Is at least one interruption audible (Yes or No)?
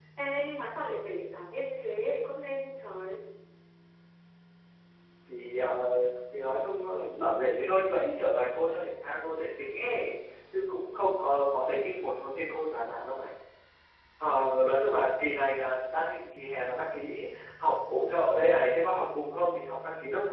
No